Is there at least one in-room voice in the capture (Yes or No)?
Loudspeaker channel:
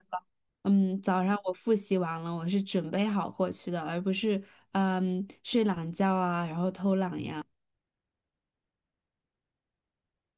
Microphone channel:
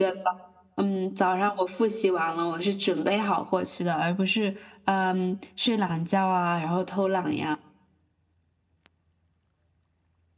No